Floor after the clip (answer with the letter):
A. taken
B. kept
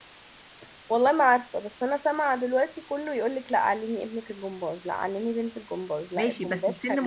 A